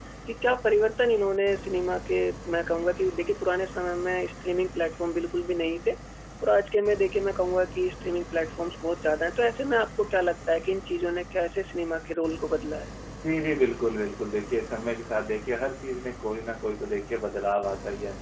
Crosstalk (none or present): none